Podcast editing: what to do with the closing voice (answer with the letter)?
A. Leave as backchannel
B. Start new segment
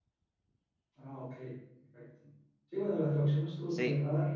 A